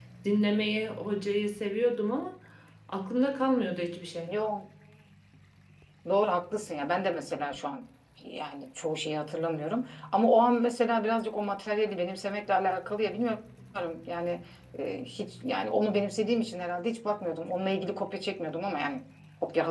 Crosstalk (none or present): none